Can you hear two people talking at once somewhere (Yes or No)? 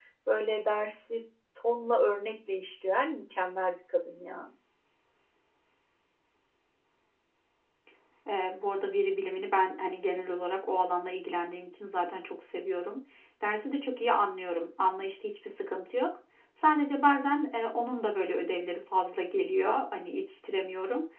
No